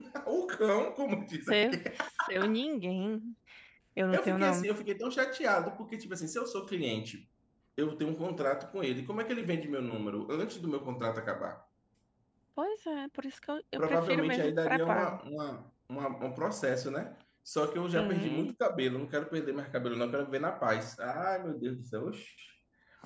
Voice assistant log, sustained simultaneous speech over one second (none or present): present